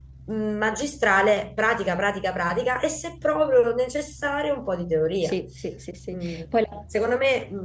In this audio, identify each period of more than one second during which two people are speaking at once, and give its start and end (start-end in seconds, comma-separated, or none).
none